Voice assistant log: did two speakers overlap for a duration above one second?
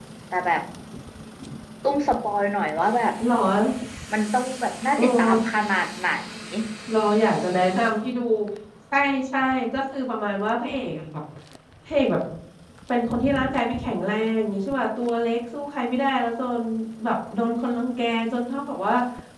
No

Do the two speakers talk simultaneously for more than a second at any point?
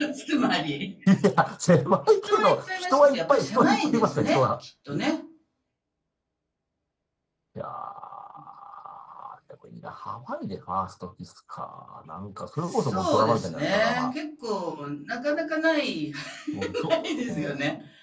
Yes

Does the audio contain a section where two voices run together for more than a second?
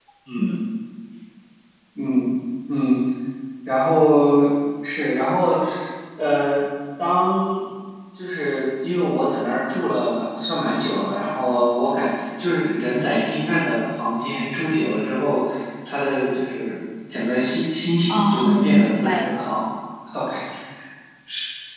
Yes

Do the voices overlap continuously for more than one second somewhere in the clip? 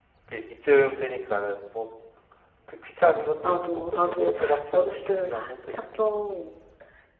Yes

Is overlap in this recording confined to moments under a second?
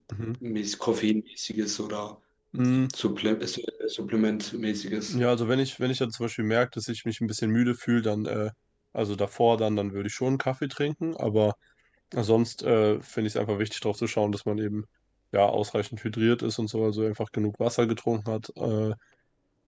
Yes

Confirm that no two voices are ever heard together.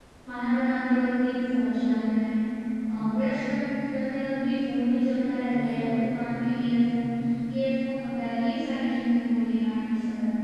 No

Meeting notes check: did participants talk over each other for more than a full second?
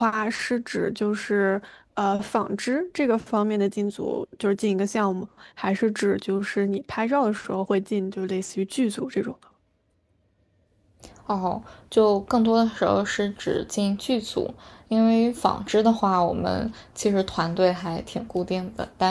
No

